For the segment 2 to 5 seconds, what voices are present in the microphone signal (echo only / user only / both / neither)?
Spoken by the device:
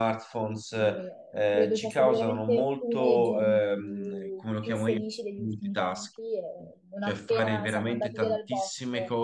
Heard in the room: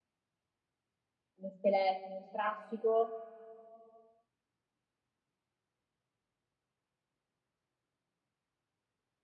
user only